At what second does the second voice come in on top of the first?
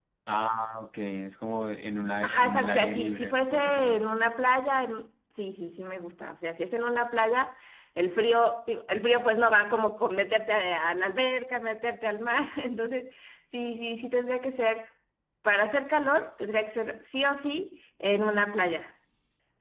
2.2 s

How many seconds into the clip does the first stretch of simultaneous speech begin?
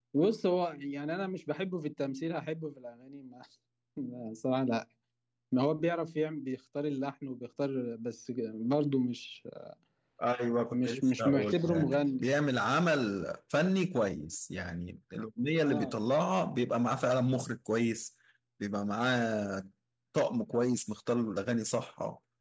10.7 s

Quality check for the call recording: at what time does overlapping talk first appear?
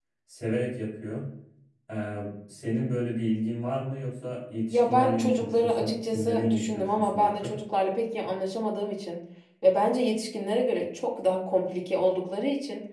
4.7 s

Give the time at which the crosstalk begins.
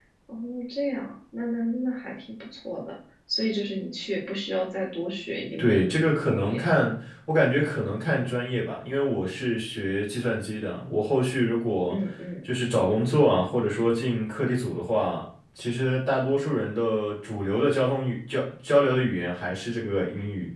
5.6 s

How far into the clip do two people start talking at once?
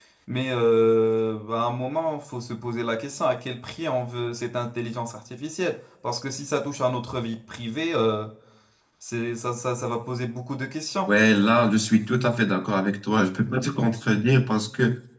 none

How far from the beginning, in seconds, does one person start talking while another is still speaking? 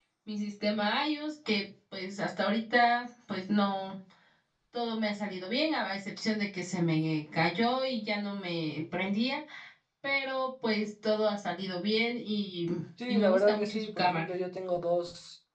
13.1 s

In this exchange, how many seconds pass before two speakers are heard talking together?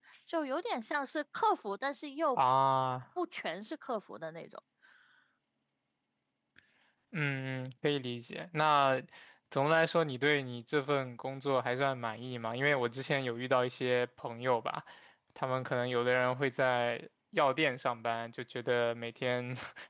none

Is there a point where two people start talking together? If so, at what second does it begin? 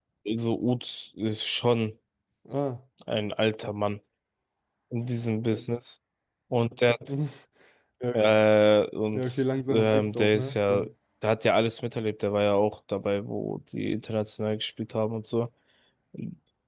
9.1 s

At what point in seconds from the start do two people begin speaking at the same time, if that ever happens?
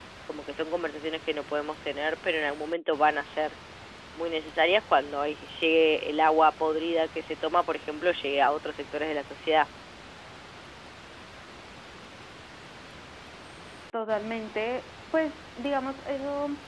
none

